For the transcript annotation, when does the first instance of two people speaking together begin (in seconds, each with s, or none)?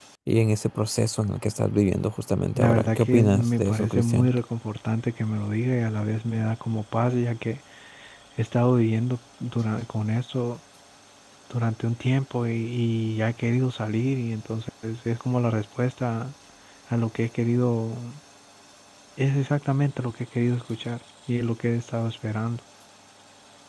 2.6 s